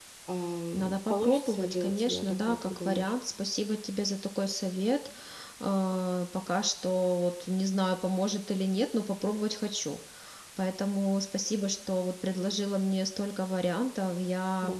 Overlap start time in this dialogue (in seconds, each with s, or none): 0.7 s